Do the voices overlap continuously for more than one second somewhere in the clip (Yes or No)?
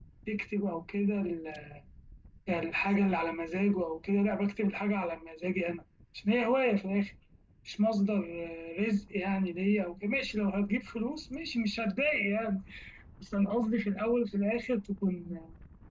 No